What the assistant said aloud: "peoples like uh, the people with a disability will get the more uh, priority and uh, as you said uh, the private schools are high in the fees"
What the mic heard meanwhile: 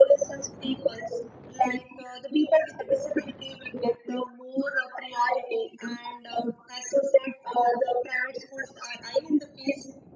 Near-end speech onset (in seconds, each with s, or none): none